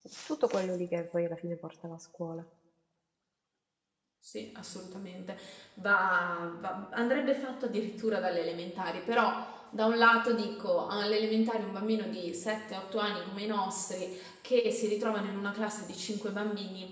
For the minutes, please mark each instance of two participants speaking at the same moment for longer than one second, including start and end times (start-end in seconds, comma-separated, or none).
none